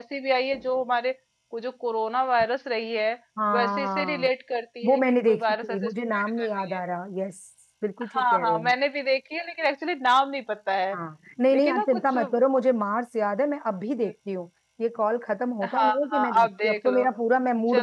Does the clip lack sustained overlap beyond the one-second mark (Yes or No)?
No